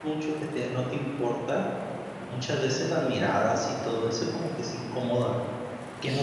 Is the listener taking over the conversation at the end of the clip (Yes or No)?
No